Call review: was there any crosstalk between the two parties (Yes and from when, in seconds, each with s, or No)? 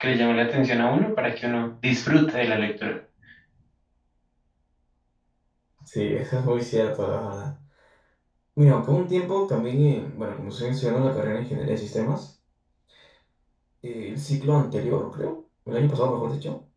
No